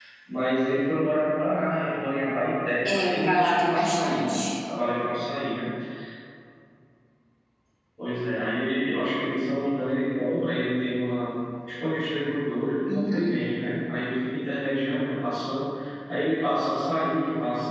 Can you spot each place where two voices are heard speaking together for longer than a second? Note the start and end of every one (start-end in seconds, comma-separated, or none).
2.9-4.3